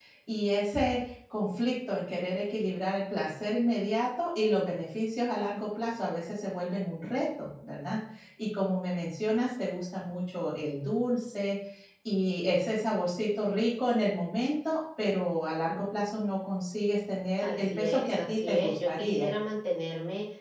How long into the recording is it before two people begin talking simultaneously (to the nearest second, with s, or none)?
17 s